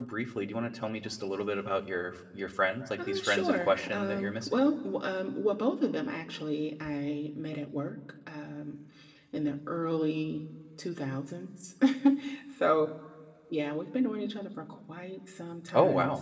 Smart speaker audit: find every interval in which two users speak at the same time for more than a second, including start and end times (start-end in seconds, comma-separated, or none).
3.0-4.6